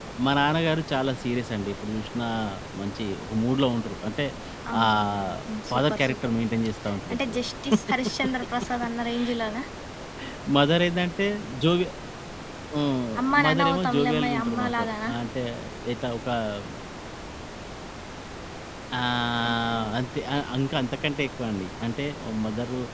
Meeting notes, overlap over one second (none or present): present